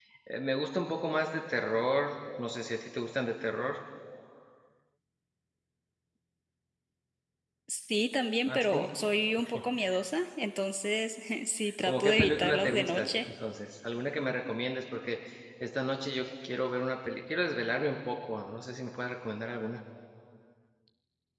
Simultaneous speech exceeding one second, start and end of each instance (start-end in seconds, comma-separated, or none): 11.8-13.1